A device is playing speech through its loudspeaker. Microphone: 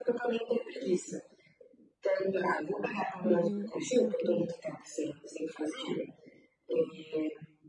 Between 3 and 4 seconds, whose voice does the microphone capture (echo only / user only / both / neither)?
both